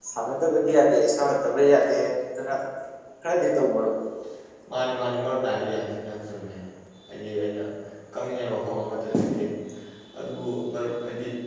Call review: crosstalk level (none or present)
none